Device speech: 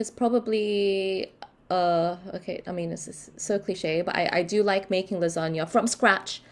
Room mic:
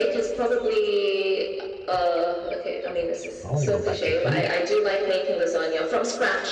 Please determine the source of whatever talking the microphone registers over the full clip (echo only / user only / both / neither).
both